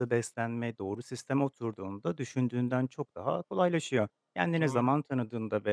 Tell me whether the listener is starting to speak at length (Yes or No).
No